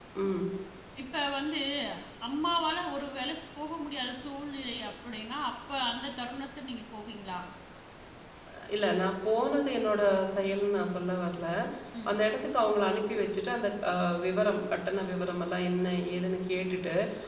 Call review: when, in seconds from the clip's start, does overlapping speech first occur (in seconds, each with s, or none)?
none